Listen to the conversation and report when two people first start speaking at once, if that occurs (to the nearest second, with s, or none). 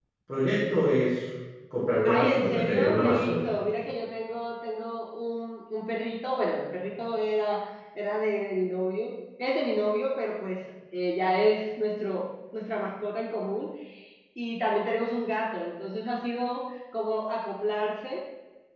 2 s